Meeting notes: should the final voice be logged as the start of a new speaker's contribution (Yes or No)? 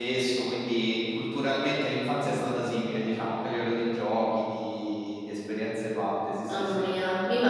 Yes